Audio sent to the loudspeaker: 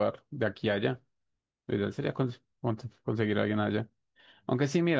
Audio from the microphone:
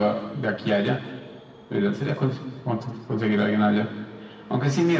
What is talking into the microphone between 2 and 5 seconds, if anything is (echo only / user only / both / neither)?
echo only